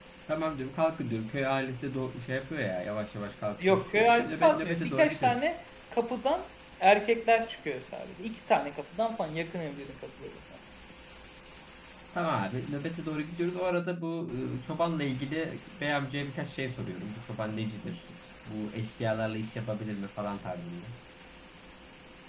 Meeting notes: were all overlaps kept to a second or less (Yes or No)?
No